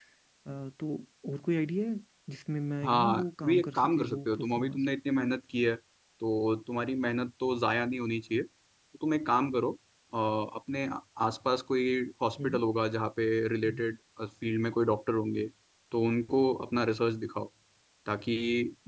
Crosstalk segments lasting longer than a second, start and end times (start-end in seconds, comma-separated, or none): 2.8-4.8